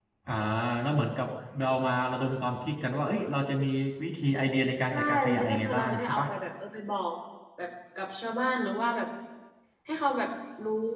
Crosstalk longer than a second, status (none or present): present